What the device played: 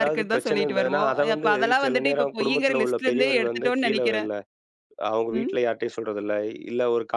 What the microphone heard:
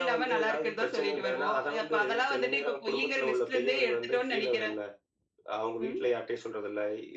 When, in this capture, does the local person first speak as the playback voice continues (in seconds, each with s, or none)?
none